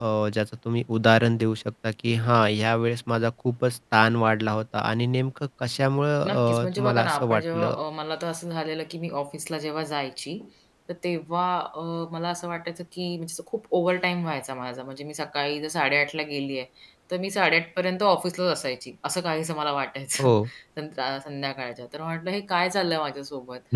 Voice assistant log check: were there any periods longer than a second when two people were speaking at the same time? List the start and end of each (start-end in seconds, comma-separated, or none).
6.2-7.7